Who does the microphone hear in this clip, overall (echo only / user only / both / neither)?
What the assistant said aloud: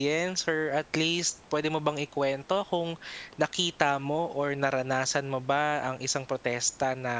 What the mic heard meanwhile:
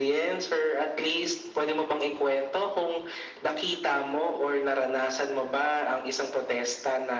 echo only